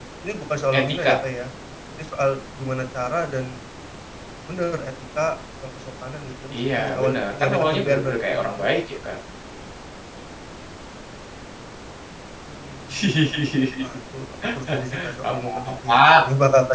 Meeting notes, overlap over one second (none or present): present